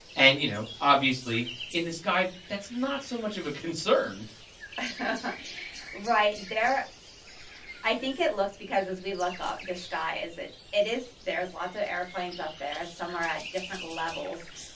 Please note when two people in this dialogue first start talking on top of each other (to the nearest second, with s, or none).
none